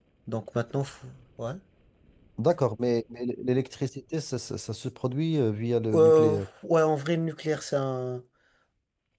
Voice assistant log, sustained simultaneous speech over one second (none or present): none